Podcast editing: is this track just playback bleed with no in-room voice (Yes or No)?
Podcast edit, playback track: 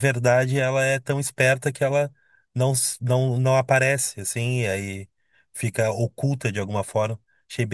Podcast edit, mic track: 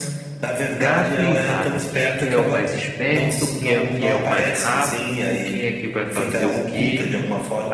No